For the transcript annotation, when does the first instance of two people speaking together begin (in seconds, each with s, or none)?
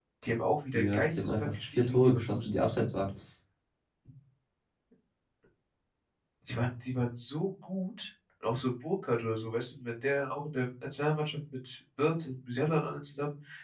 0.7 s